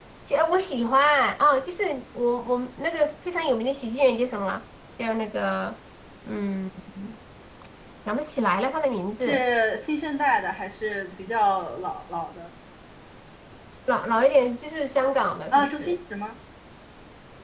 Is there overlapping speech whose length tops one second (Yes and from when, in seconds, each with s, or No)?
No